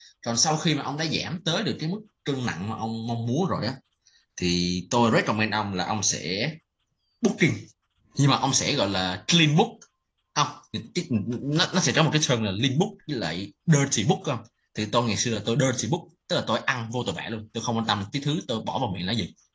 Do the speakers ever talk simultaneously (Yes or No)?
No